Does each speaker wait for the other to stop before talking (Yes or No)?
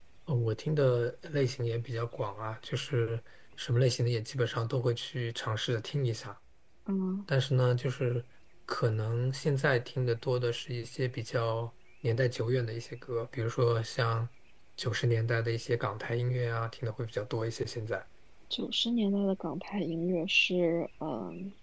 Yes